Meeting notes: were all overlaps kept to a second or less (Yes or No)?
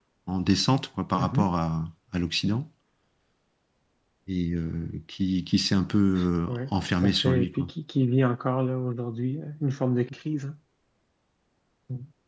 No